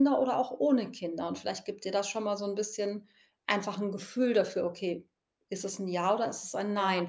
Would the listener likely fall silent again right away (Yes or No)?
Yes